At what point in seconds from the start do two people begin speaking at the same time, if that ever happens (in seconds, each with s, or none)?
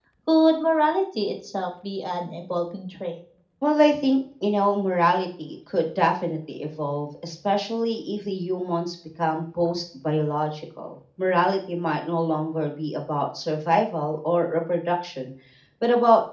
none